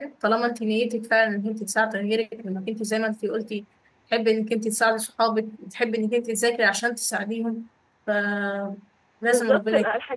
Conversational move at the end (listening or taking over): taking over